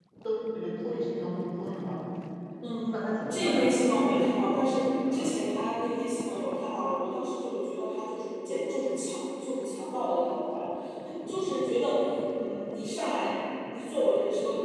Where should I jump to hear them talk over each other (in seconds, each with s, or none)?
2.9 s